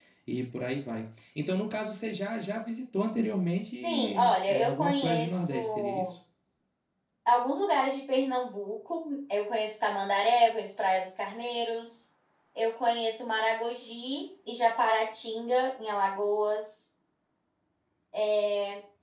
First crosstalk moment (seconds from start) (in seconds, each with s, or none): 3.8 s